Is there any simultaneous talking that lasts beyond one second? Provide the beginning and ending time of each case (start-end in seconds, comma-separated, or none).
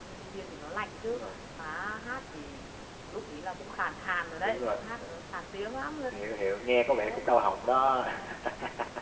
none